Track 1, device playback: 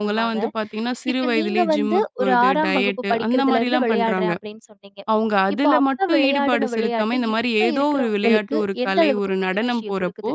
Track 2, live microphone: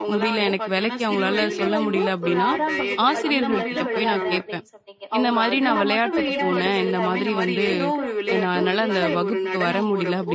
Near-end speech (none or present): present